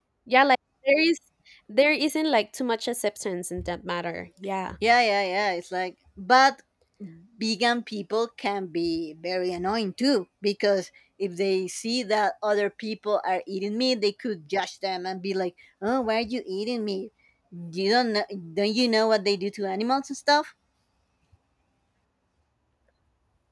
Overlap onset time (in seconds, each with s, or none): none